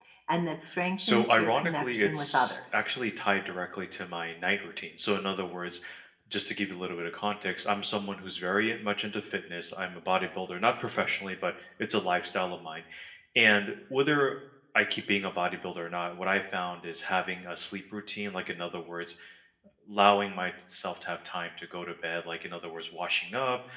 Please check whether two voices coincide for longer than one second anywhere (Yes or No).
Yes